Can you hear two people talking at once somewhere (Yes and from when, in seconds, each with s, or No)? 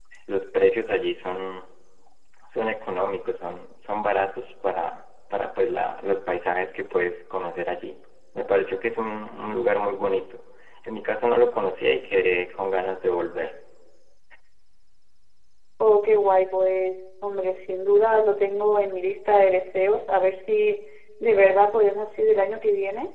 No